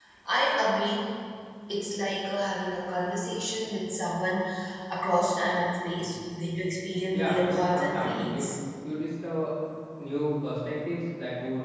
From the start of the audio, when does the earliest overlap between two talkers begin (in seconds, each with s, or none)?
7.1 s